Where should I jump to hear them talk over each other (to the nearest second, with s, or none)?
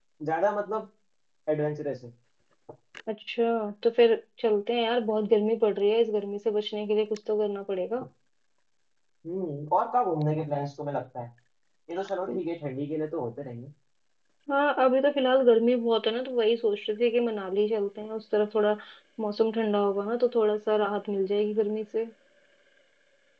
none